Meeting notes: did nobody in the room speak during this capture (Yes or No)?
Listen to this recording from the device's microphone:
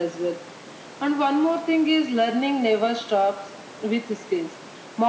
Yes